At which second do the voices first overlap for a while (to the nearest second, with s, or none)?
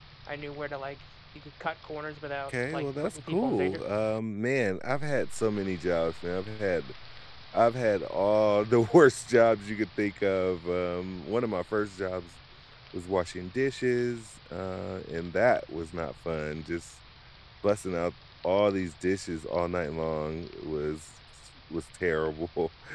2 s